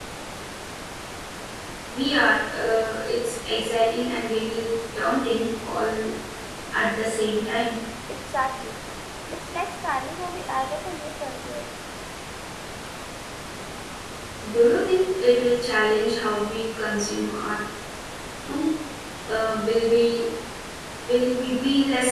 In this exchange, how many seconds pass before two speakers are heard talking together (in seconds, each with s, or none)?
none